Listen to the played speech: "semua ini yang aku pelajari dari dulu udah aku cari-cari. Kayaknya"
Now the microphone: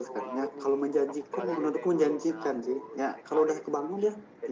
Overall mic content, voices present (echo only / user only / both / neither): both